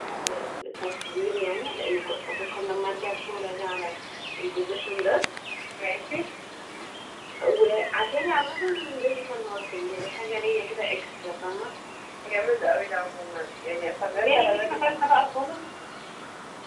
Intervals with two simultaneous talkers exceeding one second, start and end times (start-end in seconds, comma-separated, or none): 14.1-15.3